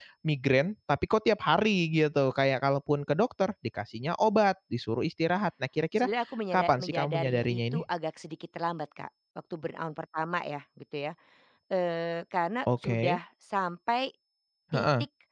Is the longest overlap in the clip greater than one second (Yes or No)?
Yes